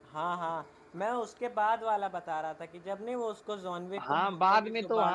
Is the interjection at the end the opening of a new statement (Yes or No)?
Yes